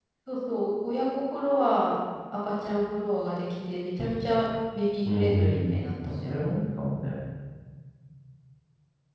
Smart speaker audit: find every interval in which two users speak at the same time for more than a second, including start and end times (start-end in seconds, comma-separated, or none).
5.1-6.5